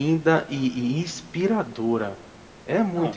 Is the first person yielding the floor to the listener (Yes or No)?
Yes